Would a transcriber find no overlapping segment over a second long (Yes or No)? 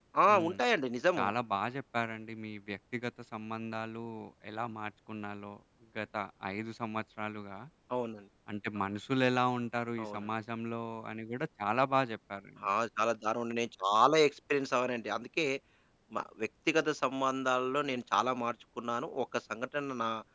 Yes